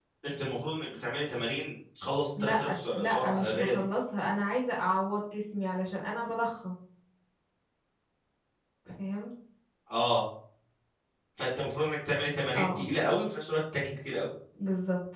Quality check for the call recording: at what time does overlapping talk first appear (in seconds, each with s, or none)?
2.4 s